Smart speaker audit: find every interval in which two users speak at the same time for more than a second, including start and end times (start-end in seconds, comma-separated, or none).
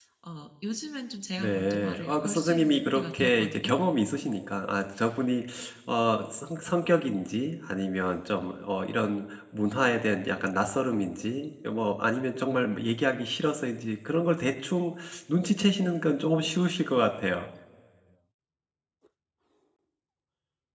1.4-3.7